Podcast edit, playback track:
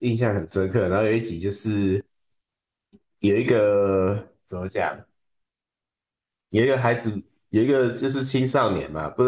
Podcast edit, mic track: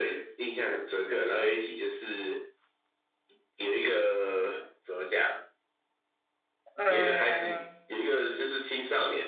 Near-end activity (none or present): present